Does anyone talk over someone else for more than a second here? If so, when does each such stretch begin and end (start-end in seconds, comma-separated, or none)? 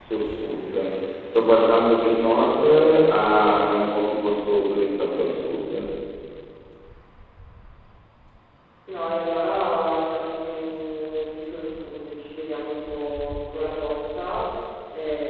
none